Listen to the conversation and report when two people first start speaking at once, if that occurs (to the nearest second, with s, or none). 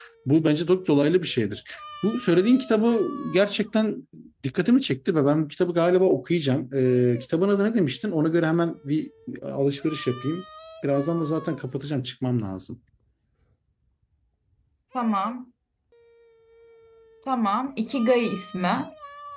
none